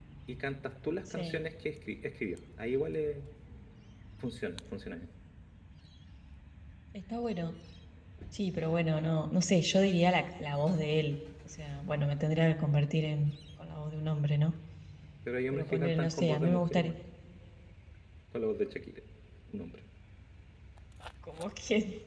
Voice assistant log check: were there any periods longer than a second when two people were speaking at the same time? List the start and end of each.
15.5-16.9

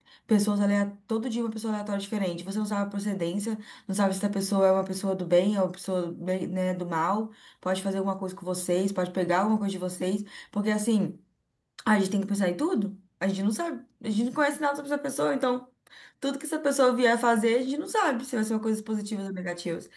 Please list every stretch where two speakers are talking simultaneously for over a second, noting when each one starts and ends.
none

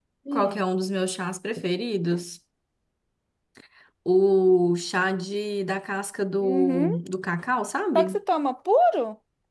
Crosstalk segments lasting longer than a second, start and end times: none

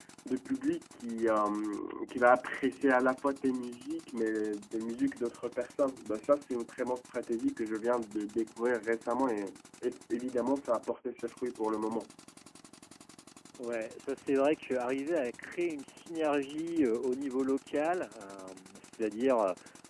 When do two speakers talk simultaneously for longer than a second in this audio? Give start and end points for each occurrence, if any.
none

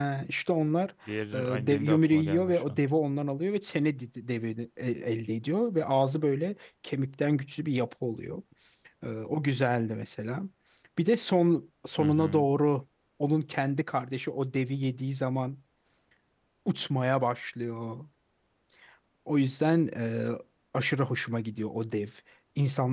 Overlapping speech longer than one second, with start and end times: 1.3-2.8

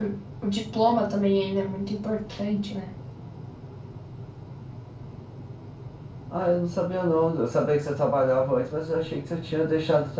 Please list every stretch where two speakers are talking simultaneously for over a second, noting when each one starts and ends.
none

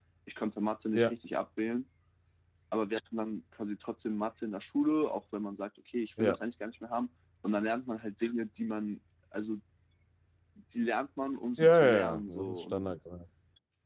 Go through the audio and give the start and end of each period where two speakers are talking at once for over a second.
11.6-12.9

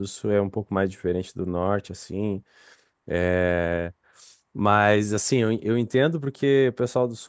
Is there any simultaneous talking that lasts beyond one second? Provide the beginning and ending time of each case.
none

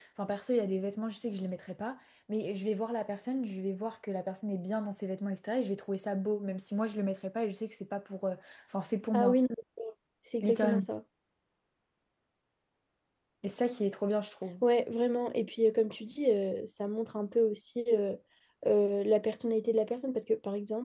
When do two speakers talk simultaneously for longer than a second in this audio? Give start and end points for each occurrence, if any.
none

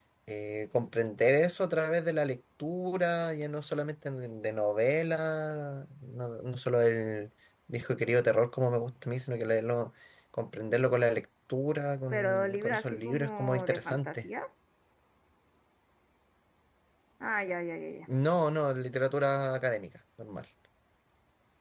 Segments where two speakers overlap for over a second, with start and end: 12.1-14.2

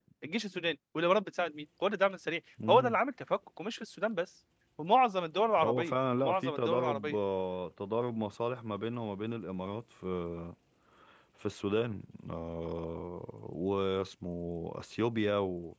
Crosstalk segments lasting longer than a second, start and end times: 5.6-7.2

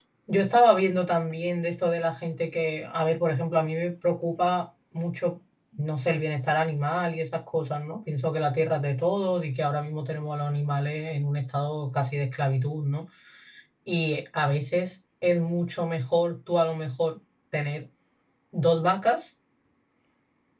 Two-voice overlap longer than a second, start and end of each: none

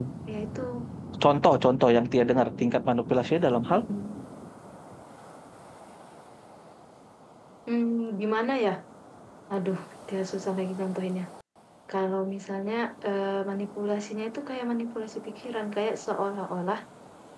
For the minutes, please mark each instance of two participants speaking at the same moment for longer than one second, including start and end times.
none

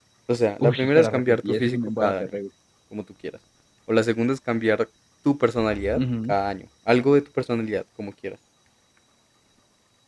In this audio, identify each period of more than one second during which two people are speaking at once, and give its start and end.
0.6-2.3

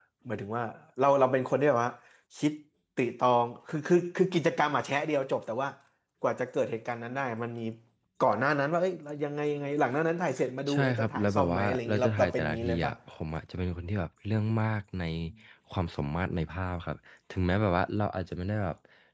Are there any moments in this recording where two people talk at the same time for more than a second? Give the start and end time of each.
10.7-12.9

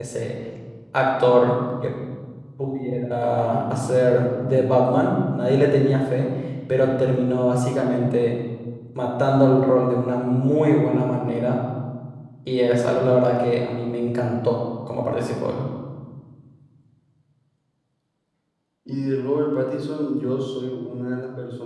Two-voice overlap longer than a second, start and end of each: 3.2-4.7

